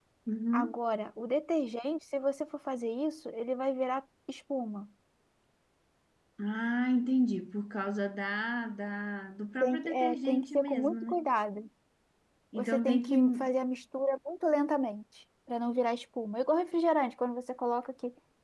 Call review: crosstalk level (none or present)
present